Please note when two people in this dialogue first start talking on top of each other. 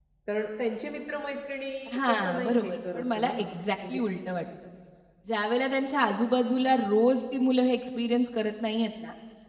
1.9 s

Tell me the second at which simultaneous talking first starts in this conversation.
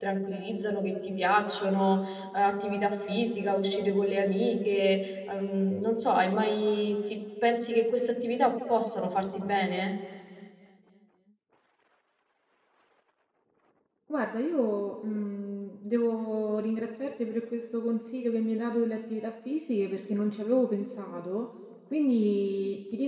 none

